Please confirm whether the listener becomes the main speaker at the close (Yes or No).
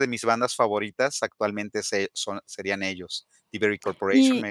Yes